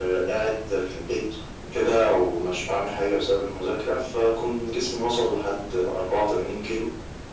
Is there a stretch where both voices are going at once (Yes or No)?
No